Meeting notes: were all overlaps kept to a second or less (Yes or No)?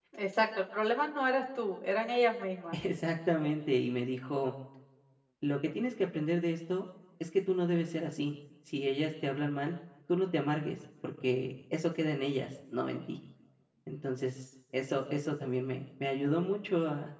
Yes